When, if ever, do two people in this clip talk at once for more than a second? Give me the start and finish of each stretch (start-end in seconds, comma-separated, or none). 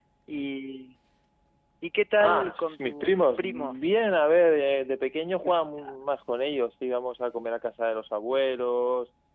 2.2-4.0